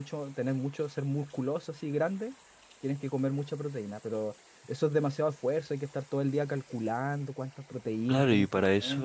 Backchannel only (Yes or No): No